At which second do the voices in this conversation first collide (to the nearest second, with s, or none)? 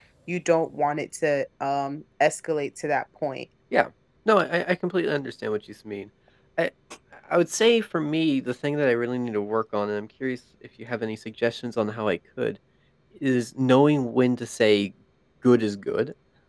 none